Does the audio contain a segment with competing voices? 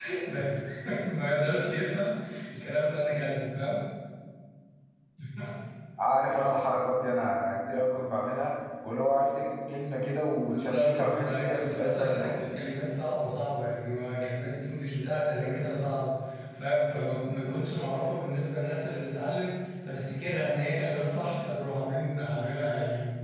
Yes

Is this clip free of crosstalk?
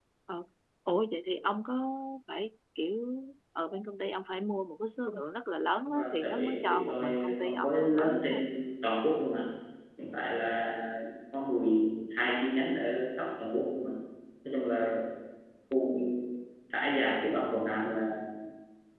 No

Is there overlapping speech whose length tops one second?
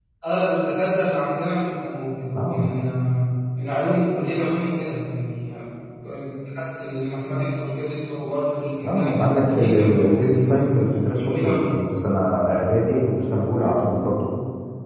Yes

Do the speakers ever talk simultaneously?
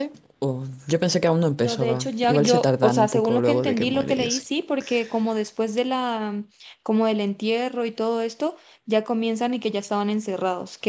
Yes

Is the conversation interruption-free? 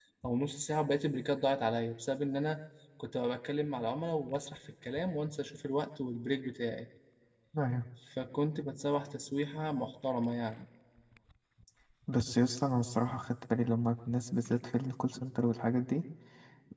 Yes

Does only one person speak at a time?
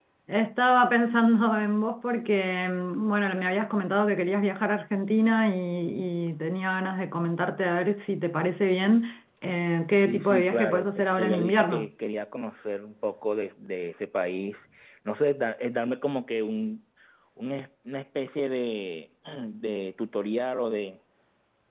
No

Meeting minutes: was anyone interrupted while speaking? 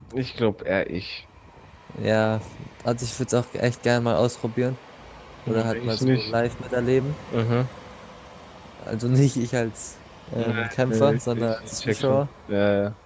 Yes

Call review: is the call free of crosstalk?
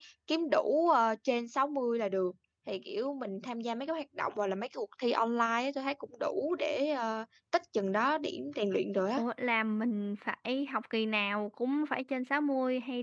Yes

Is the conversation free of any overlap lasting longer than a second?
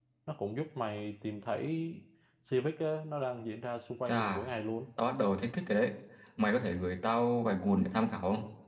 Yes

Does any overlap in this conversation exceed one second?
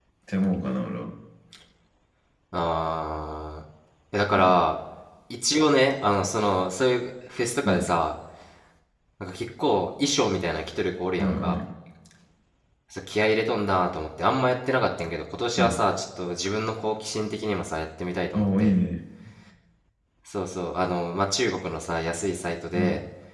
No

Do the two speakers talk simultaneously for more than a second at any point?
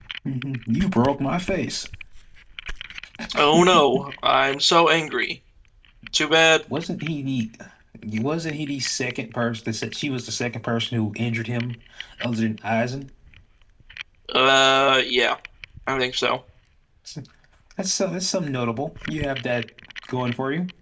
No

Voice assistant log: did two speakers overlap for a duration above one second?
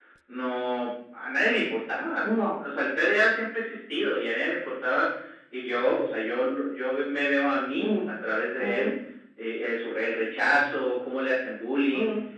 No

